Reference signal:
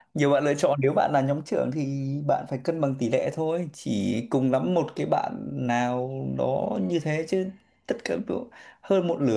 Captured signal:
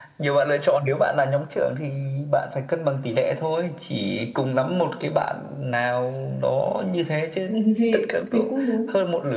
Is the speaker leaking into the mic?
Yes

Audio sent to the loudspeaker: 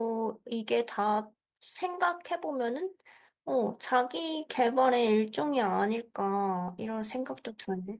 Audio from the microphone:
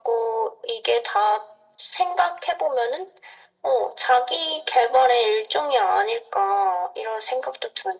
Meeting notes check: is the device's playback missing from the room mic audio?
No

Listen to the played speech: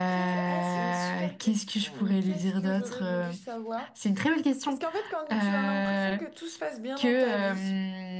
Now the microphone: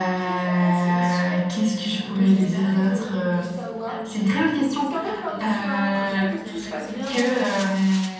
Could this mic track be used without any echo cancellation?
No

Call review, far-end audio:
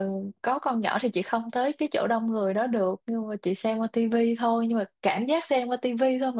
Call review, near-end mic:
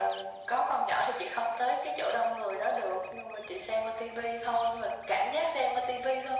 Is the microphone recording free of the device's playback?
No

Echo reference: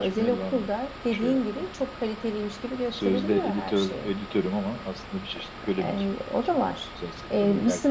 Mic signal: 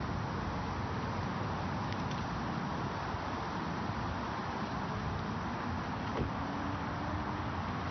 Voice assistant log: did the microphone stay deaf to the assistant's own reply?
Yes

